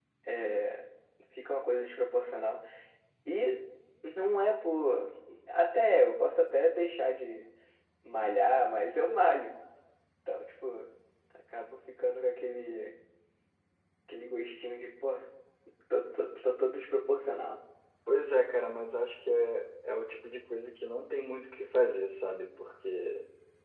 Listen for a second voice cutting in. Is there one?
No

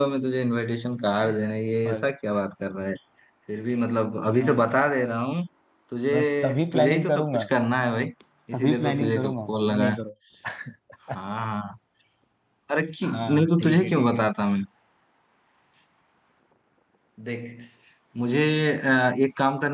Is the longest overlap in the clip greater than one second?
Yes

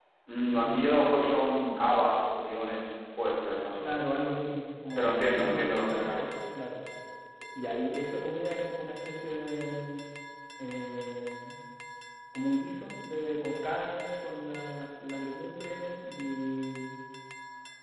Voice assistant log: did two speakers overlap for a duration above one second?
Yes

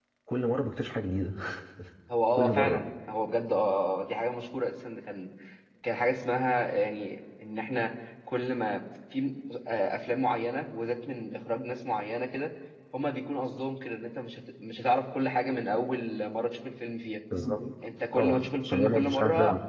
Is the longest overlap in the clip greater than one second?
Yes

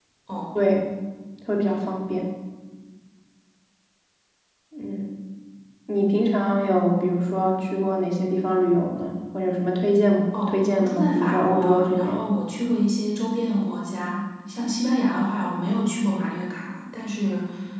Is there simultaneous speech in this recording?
Yes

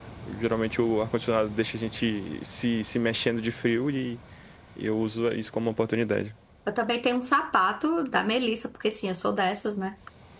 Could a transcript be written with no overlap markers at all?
Yes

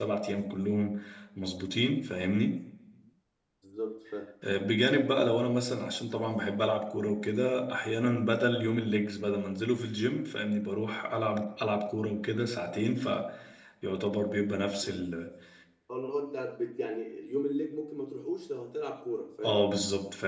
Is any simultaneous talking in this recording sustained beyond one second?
No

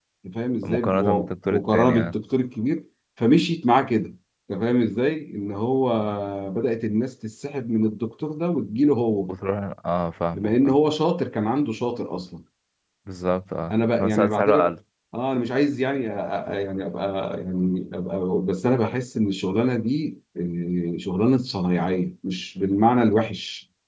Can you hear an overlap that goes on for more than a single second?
Yes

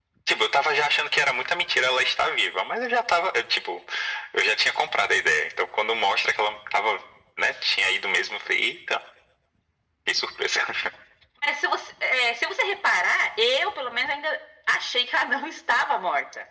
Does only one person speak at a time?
Yes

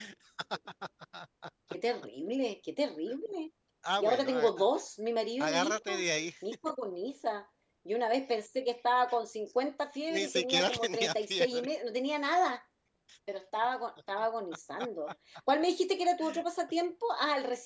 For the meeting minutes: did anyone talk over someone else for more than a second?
Yes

